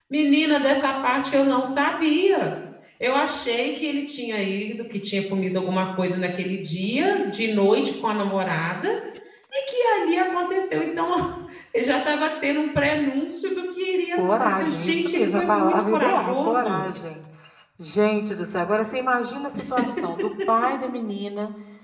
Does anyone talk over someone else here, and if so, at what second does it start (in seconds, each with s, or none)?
14.3 s